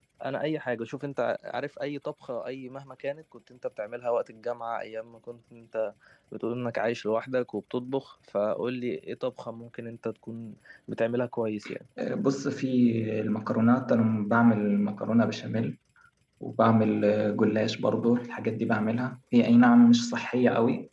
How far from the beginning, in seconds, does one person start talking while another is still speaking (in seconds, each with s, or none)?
none